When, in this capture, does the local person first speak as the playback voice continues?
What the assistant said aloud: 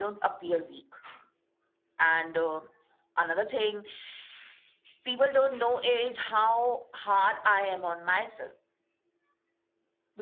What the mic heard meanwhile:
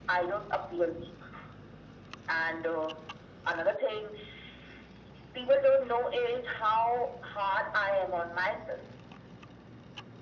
none

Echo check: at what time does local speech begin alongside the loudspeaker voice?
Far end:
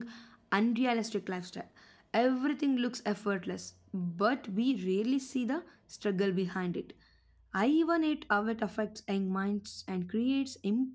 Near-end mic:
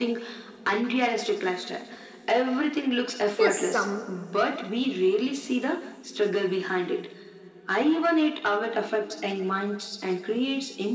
3.4 s

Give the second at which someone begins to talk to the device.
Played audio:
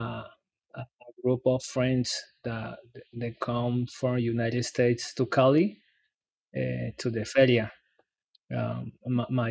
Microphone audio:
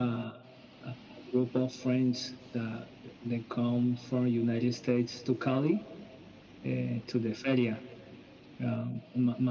none

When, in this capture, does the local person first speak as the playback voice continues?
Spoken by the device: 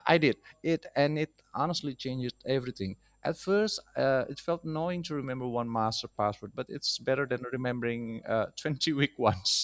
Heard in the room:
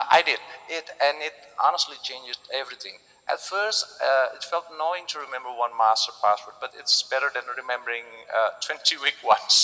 none

